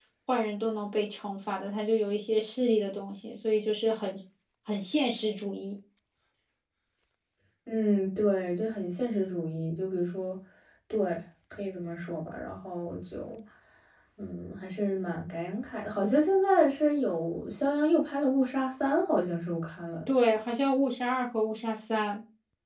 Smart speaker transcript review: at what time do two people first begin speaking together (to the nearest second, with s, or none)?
none